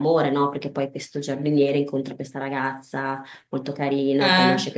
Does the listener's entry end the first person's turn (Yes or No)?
No